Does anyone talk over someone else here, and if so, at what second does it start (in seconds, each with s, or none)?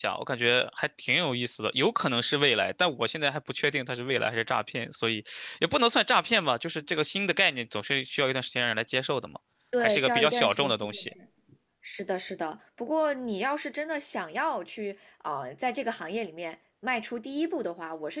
9.8 s